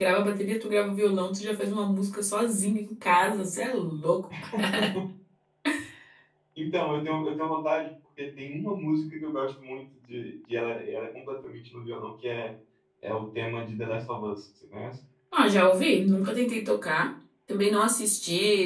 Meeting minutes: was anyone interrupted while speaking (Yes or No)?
No